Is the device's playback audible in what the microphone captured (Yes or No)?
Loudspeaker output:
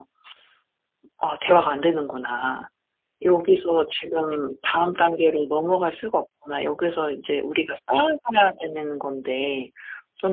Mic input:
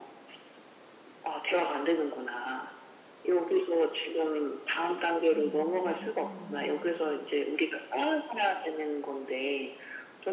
Yes